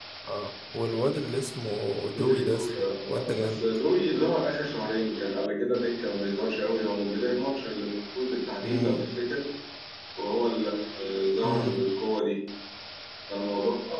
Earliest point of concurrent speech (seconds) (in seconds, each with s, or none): 2.2 s